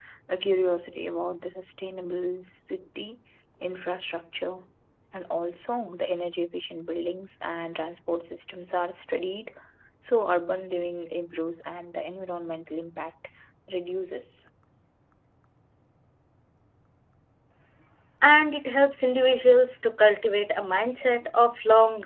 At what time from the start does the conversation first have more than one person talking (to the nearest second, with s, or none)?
none